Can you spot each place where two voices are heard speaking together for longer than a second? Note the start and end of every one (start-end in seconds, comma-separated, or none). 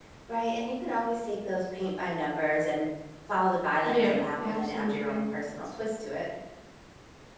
3.8-5.2